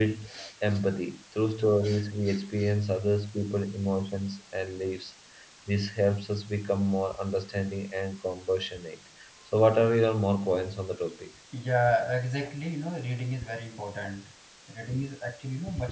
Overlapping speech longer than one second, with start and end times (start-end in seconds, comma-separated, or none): none